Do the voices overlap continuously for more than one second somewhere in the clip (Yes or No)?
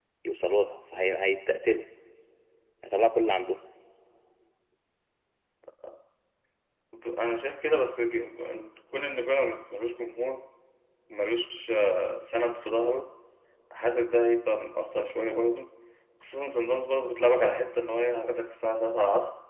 No